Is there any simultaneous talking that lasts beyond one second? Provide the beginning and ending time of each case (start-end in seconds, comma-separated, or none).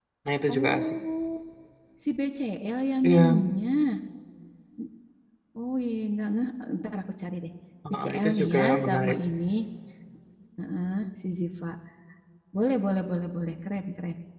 7.9-9.2